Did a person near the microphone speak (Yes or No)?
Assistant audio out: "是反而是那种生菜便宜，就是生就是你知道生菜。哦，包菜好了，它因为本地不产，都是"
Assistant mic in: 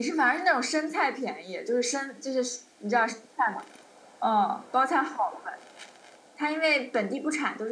No